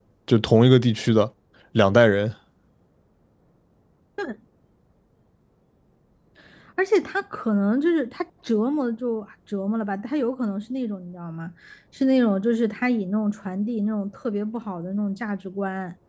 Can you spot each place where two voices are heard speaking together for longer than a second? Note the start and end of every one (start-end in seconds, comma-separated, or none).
none